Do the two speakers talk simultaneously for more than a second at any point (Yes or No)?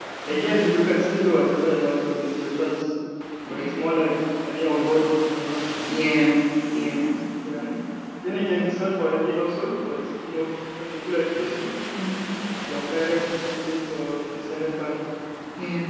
No